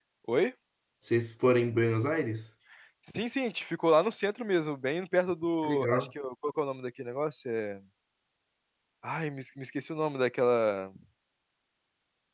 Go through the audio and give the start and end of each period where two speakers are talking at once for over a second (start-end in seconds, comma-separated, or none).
none